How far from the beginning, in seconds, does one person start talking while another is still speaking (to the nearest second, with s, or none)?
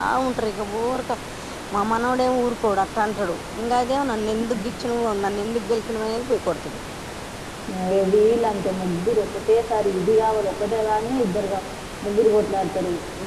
none